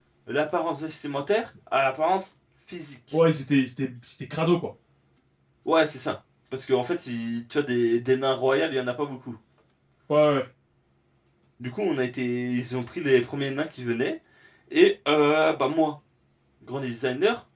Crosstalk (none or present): none